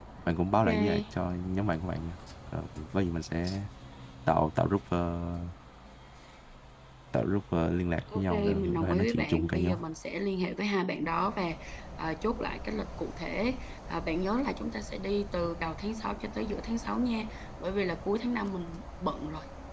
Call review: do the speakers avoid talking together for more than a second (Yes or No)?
No